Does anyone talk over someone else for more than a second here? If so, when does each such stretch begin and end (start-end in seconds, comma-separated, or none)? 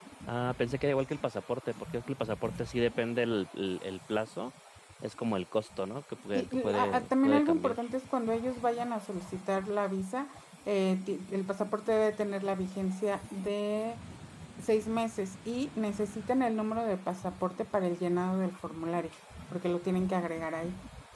6.4-7.8